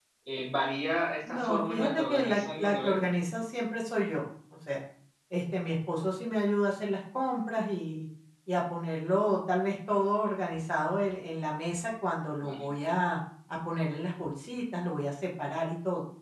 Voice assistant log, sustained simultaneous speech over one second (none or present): present